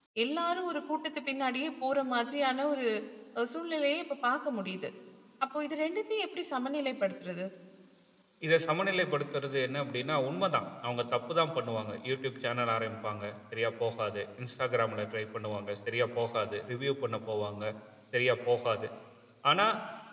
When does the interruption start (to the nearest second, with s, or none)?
none